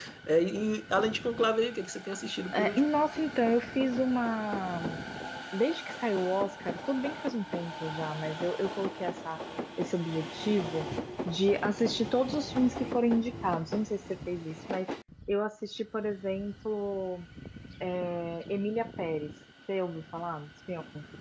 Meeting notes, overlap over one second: none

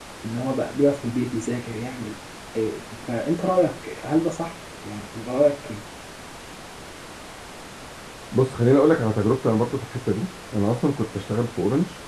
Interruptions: none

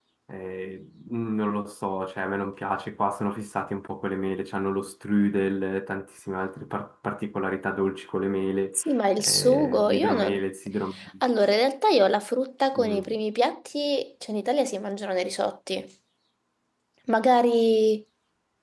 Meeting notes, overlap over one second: present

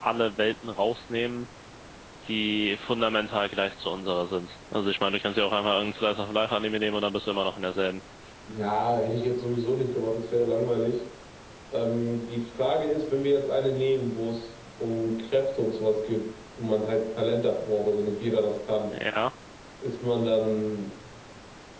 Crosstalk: none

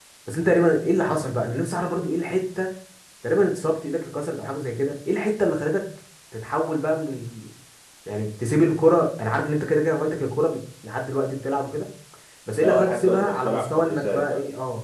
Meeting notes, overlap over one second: present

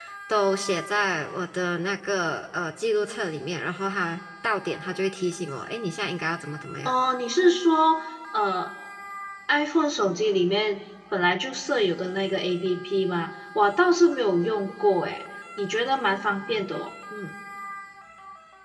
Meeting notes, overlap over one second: none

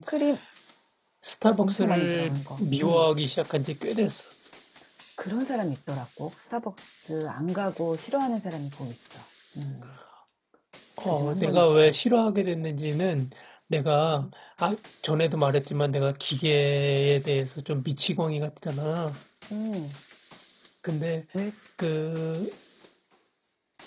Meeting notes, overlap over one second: present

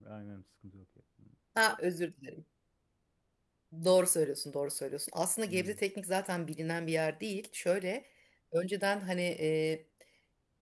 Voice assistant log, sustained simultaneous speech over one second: none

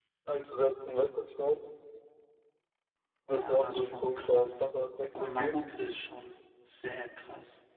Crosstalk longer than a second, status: present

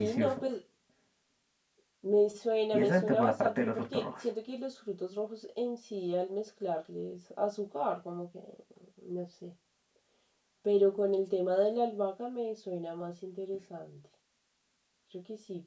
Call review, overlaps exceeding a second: present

